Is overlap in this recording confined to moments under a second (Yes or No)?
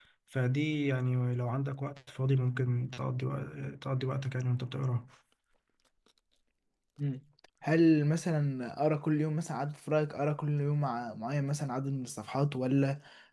Yes